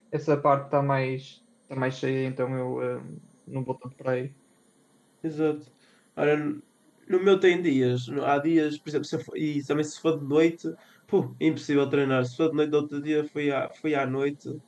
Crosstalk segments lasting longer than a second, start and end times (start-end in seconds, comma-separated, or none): none